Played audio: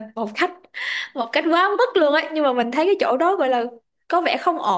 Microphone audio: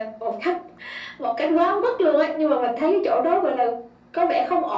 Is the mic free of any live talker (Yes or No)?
Yes